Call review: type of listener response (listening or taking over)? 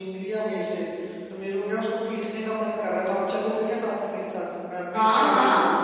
taking over